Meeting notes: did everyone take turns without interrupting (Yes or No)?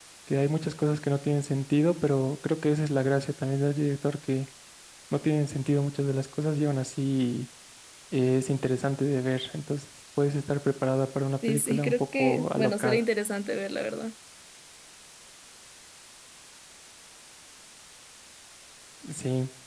No